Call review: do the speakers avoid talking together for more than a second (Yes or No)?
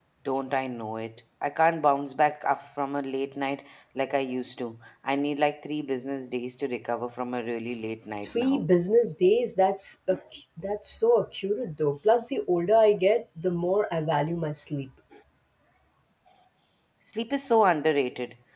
Yes